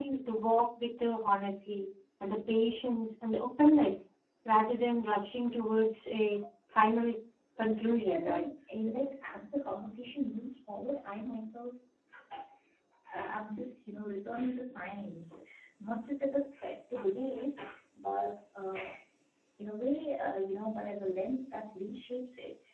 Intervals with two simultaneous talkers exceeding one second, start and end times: none

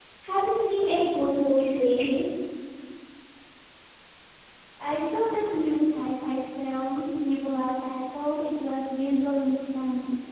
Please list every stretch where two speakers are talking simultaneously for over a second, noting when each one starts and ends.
none

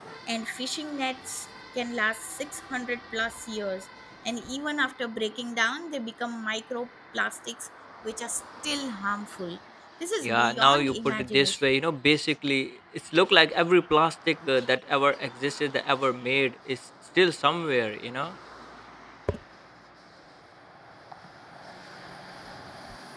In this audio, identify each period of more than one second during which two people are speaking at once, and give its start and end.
10.2-11.7

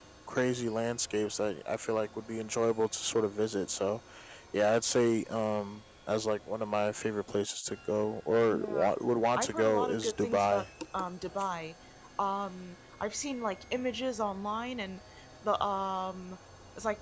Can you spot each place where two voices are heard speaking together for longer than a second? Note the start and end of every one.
9.3-10.7

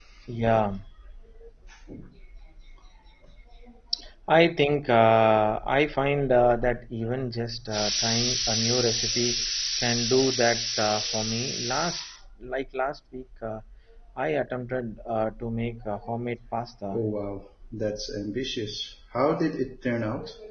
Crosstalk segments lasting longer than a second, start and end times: none

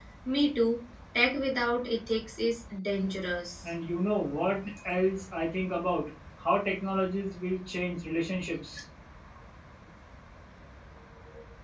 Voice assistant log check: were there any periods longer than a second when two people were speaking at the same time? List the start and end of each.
none

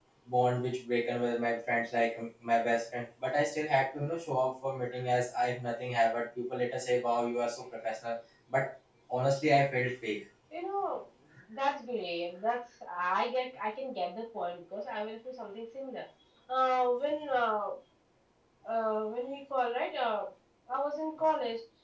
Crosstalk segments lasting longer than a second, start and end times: none

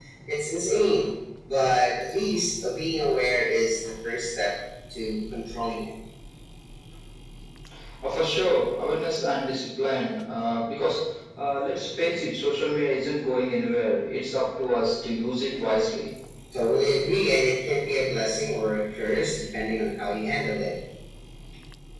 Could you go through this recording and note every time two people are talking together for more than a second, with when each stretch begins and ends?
none

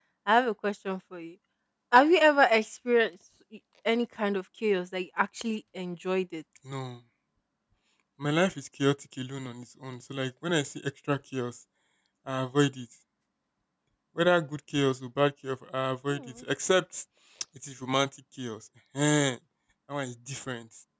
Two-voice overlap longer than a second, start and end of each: none

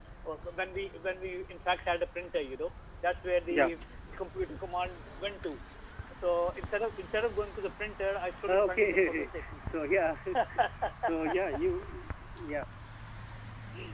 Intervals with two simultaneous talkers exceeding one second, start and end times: 8.5-9.8

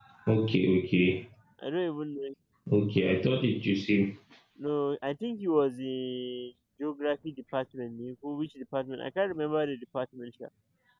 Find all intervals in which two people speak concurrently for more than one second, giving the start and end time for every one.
none

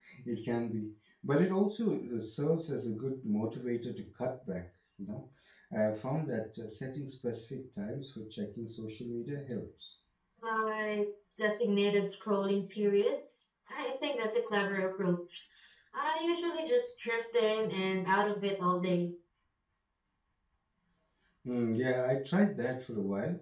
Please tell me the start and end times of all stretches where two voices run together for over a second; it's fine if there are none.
none

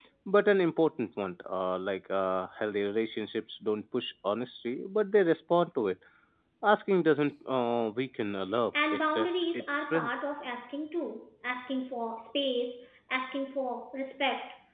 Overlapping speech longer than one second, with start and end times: 8.9-10.2

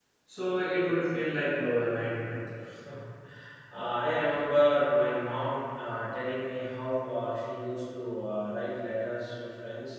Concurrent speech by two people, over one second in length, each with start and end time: none

